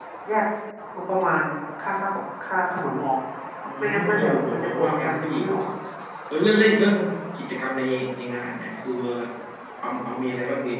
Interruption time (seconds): 3.8 s

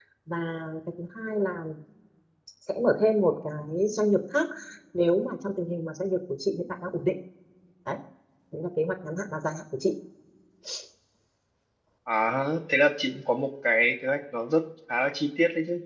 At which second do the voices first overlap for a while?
none

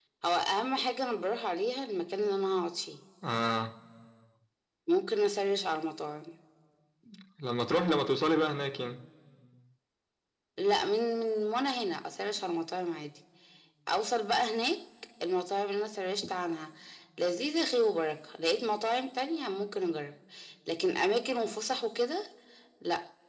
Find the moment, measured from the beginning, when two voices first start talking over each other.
none

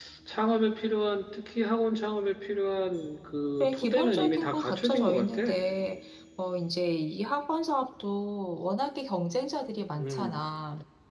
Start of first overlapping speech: 3.6 s

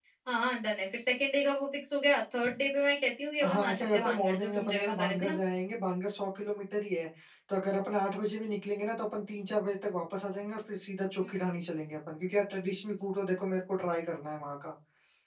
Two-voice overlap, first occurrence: 3.4 s

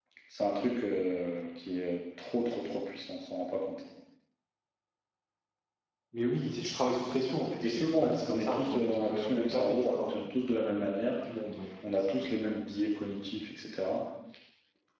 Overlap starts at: 7.6 s

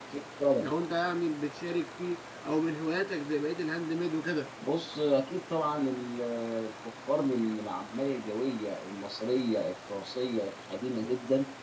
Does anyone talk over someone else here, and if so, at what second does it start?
none

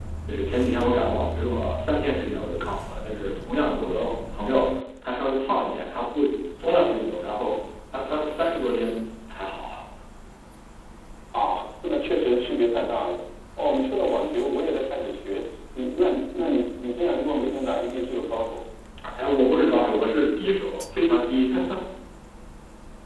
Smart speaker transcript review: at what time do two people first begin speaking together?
none

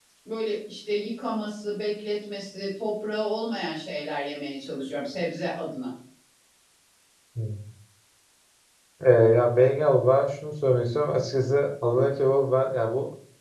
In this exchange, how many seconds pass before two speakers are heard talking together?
none

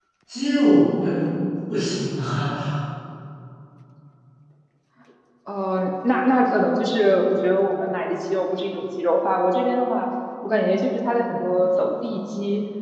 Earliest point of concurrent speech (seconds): none

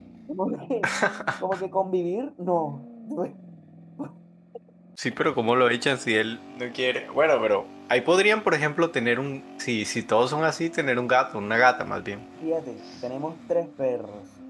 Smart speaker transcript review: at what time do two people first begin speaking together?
none

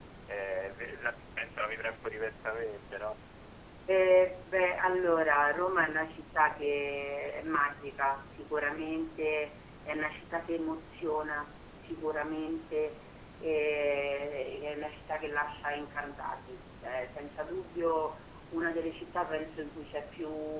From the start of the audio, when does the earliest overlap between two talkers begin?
none

